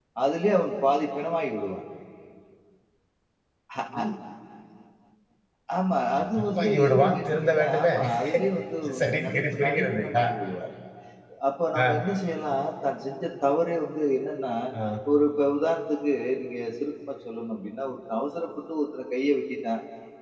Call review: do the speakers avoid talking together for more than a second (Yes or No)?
No